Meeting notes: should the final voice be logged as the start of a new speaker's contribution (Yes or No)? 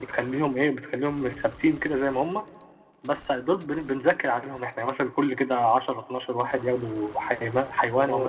Yes